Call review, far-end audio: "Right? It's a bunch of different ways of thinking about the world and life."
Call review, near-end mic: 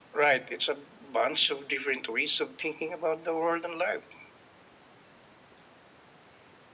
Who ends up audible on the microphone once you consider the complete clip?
echo only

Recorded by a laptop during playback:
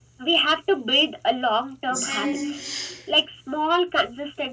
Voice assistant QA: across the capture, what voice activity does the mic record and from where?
both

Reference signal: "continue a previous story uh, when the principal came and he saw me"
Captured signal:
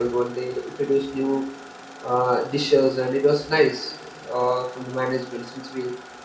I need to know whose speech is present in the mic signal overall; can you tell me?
user only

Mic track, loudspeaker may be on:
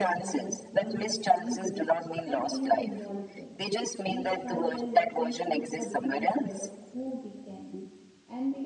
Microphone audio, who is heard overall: both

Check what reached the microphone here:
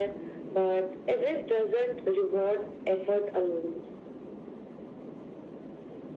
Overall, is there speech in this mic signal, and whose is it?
echo only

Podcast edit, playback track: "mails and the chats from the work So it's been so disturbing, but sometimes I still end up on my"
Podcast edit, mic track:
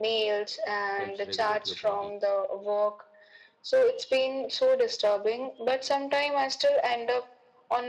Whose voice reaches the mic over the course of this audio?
both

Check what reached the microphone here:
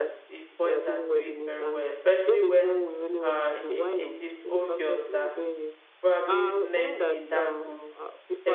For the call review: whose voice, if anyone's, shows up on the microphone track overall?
both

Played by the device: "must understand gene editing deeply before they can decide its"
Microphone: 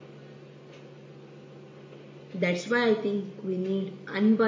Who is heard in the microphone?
user only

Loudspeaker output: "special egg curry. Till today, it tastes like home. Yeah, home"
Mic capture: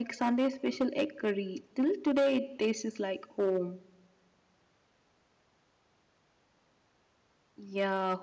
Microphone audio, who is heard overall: echo only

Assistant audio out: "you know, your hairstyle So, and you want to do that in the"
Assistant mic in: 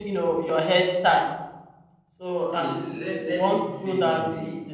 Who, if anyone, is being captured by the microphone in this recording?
both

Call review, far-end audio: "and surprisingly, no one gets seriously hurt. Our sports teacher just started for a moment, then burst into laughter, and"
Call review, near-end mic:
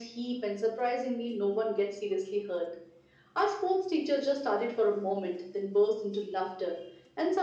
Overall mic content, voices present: echo only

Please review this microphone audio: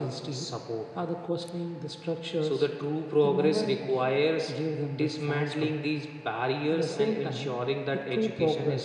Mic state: echo only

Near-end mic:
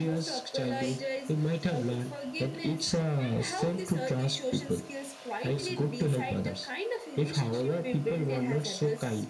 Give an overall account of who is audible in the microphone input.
echo only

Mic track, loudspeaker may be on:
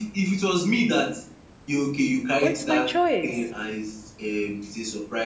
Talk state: both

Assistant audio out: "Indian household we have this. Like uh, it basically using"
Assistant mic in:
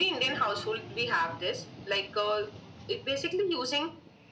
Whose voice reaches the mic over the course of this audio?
echo only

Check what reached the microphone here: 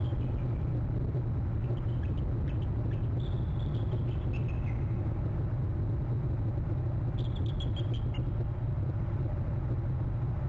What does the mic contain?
neither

